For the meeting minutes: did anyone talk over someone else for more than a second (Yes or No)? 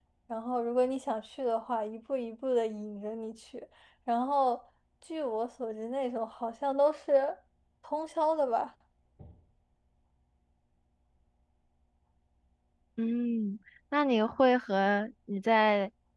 No